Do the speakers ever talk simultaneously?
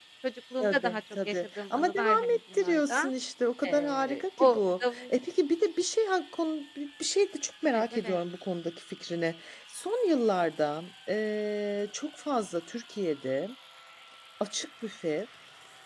Yes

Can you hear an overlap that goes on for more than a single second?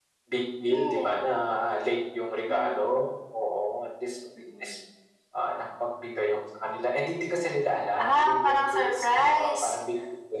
Yes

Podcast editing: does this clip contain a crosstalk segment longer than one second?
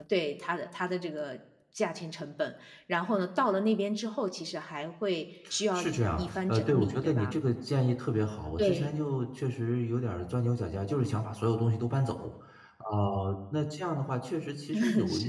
Yes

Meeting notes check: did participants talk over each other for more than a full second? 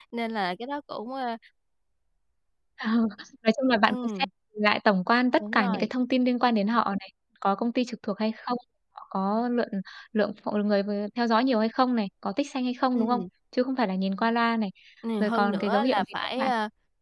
Yes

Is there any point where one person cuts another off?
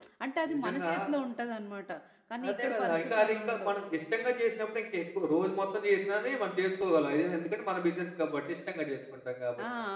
Yes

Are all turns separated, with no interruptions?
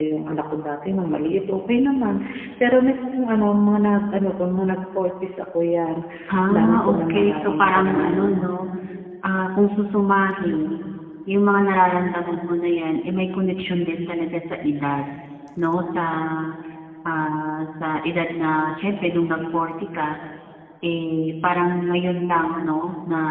No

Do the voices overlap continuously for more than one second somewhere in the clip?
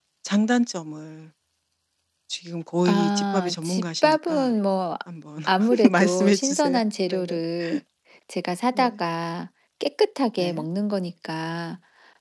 Yes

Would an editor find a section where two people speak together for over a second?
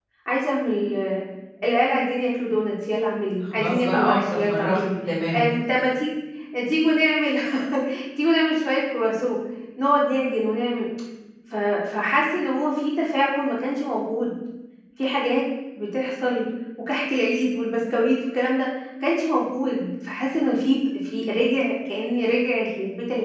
Yes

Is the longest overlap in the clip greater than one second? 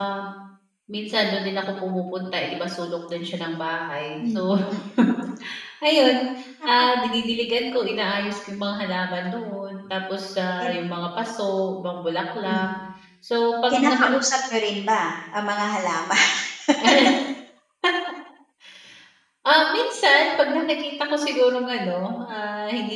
No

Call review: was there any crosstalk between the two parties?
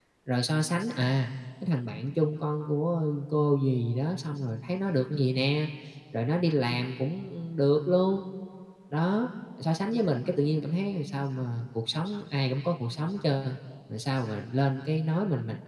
No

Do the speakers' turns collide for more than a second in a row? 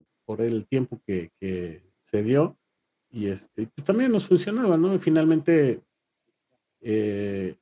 No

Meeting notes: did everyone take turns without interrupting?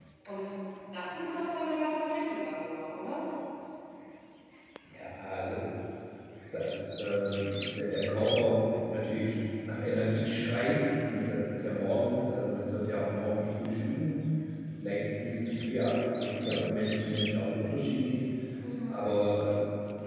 Yes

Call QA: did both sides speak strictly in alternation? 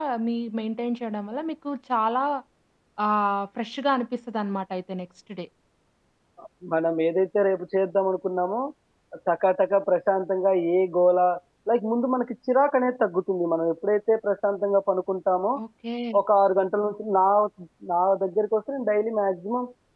Yes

